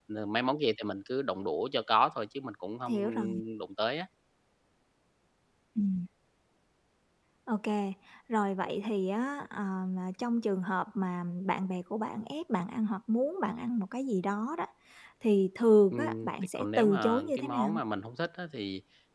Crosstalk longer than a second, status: present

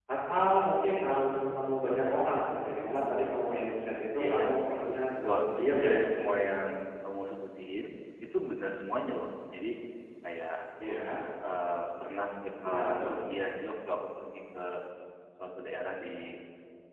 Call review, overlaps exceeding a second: none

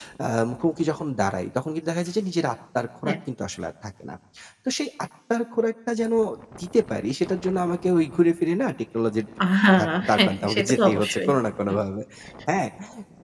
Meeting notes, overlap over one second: present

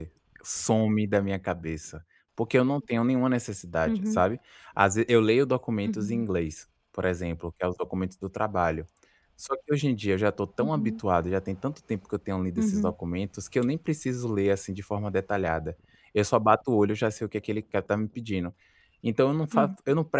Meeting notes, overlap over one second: none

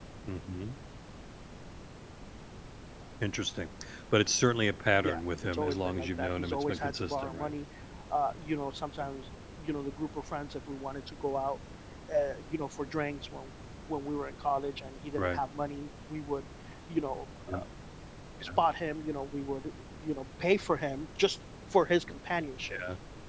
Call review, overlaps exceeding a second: present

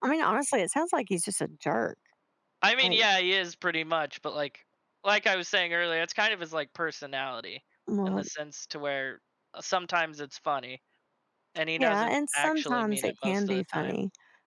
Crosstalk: present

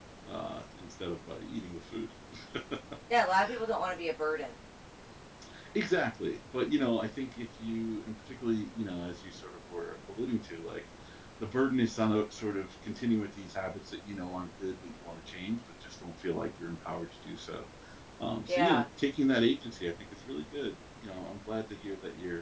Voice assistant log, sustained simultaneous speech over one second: none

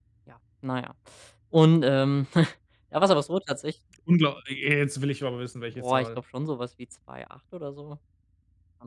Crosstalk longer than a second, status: none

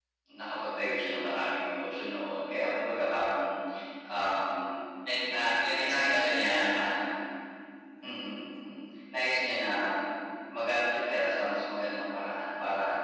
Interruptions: present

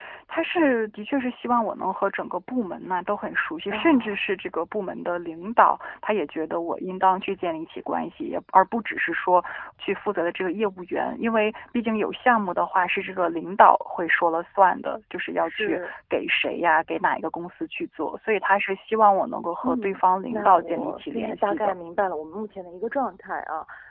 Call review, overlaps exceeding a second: present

